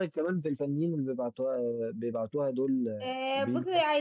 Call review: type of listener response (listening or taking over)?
taking over